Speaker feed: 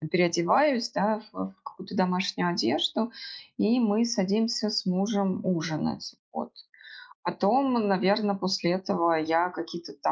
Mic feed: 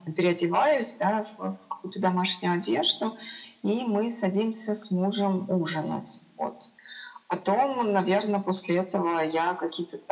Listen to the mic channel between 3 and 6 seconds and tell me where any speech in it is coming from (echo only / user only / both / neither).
echo only